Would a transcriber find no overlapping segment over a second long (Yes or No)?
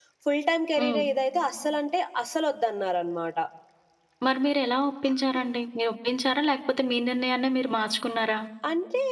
Yes